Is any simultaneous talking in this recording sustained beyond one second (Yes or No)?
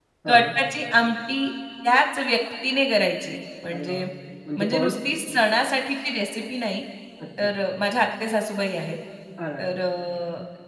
No